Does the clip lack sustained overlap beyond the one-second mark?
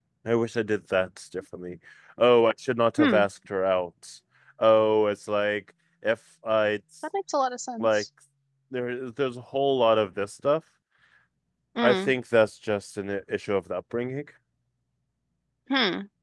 Yes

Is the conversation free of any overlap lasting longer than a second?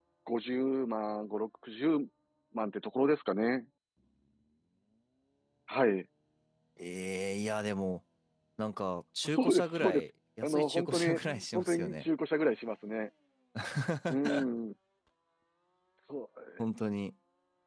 No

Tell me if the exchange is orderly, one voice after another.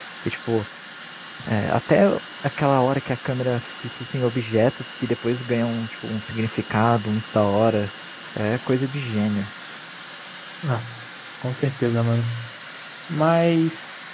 Yes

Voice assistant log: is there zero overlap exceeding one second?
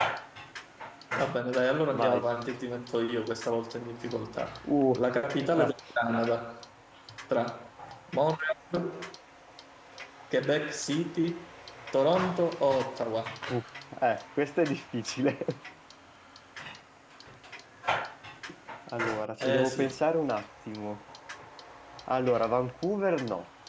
Yes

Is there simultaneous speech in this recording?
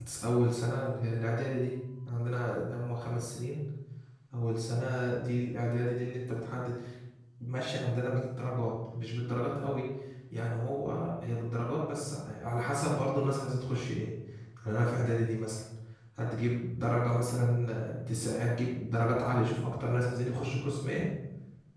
No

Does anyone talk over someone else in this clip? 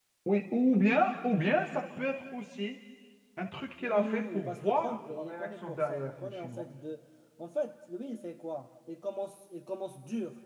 Yes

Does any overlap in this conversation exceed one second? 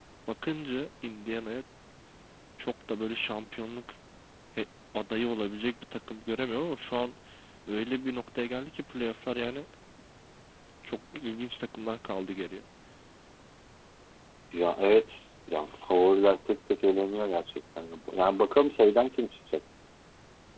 No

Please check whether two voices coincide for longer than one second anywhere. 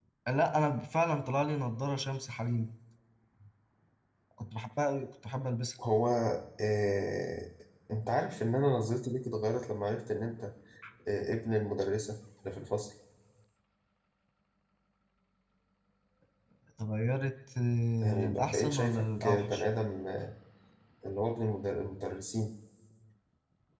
Yes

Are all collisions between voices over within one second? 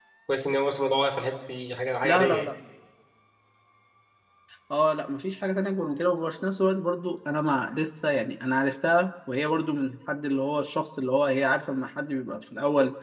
Yes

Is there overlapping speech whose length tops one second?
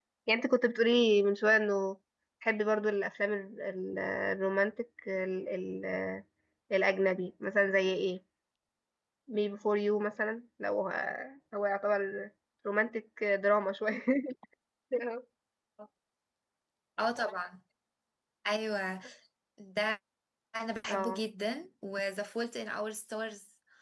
No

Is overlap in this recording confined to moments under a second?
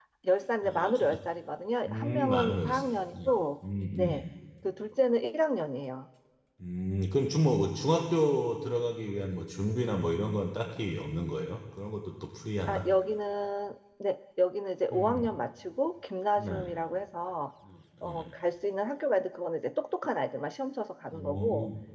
No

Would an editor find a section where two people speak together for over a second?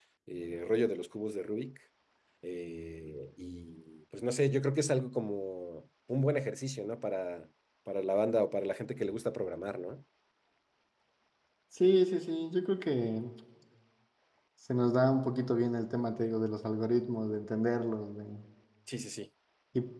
No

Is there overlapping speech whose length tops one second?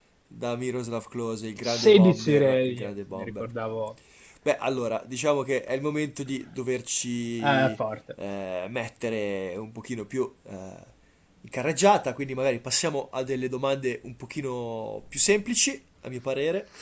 Yes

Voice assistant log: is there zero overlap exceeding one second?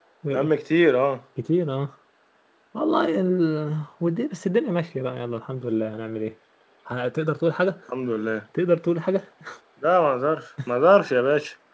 Yes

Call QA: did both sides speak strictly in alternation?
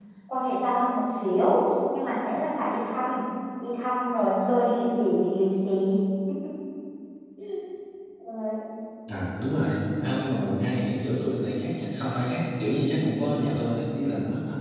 Yes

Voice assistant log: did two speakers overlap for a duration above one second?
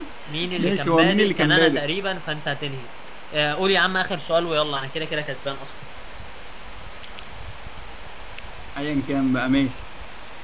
Yes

